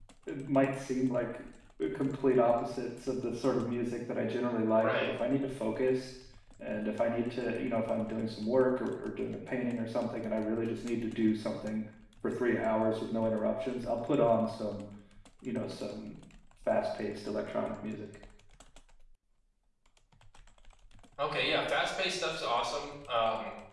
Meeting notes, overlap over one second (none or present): none